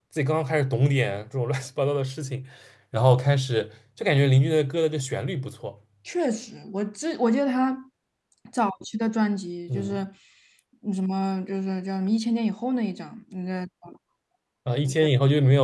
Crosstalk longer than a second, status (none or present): none